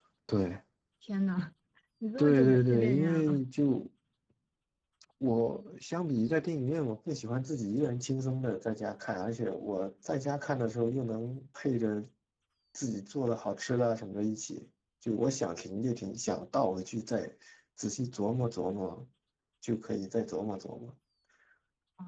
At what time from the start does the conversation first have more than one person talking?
2 s

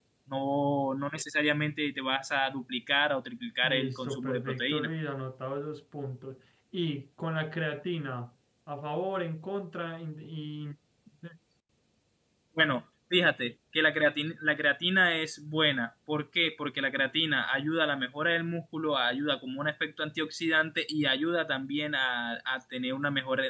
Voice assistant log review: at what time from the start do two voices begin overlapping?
4 s

